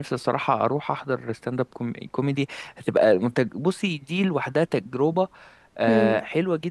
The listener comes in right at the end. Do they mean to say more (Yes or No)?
No